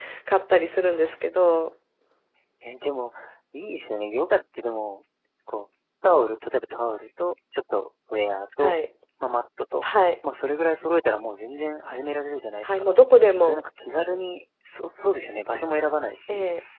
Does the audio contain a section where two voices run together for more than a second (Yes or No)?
No